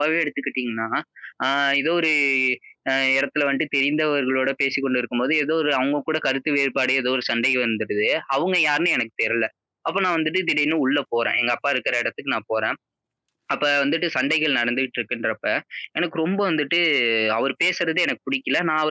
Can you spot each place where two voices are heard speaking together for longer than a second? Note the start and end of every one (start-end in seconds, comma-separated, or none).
none